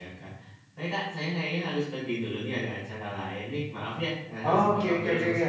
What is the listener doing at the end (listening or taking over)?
taking over